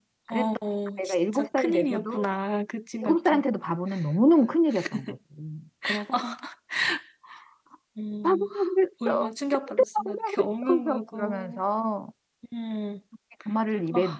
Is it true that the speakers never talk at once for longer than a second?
No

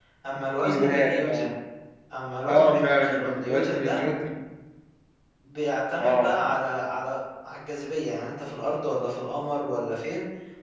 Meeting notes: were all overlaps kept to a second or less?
No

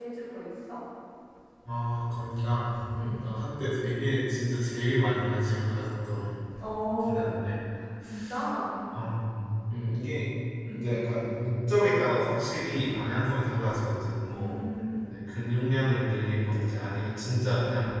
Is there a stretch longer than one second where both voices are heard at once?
No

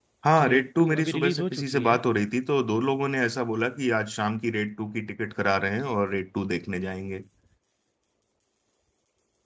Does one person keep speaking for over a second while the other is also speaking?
Yes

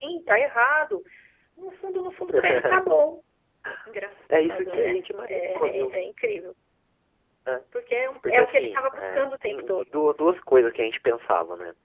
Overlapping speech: Yes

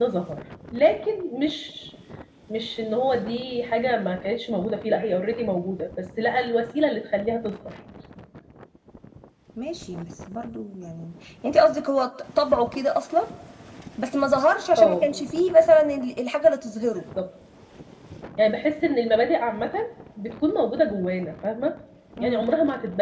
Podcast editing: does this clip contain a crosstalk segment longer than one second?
No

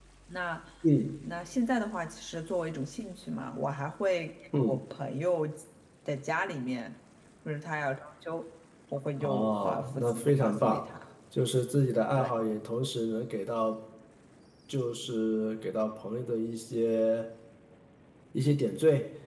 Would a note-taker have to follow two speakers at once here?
Yes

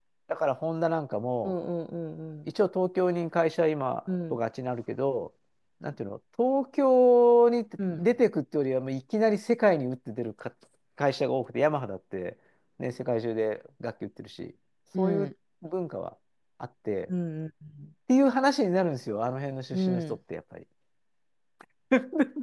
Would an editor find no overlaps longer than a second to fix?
Yes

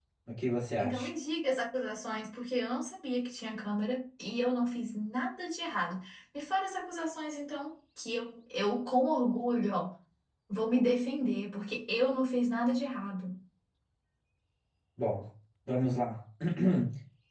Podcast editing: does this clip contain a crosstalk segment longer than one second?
No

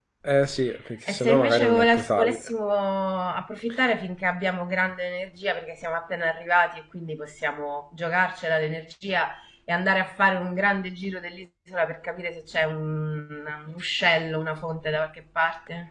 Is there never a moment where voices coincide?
No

